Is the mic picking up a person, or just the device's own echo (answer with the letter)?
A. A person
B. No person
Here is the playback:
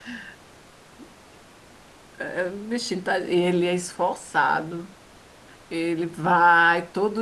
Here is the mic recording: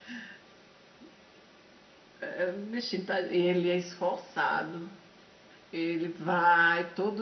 B